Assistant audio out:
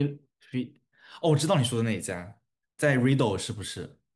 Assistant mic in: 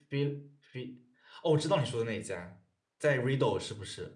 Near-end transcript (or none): none